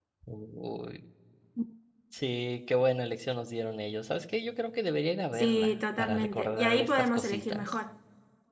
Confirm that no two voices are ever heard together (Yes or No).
No